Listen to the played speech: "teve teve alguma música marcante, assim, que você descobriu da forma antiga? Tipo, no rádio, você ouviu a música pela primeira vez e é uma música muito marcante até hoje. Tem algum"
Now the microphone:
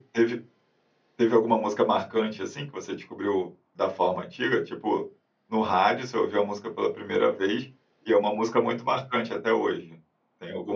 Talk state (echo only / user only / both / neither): echo only